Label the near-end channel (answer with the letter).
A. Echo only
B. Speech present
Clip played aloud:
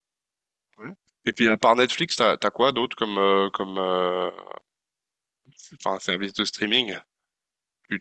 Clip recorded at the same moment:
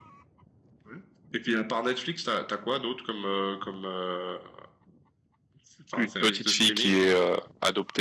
B